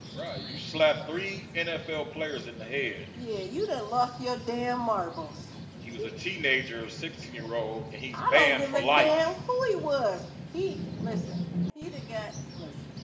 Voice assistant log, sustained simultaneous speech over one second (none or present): present